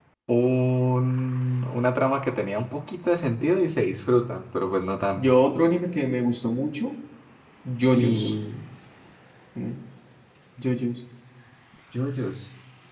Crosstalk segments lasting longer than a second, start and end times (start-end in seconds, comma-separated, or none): none